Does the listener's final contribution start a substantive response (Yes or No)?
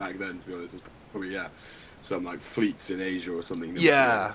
Yes